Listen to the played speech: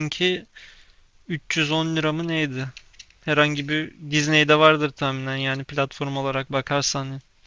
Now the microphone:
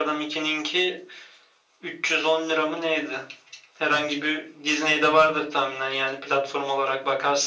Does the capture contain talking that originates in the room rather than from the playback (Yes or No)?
No